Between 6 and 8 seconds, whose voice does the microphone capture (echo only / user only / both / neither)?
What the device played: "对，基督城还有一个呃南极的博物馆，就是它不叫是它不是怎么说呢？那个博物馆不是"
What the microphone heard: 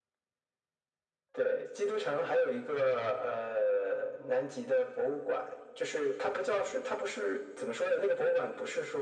echo only